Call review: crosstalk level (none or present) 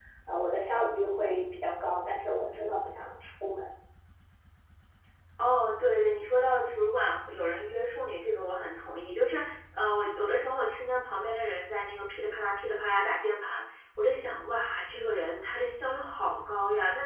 none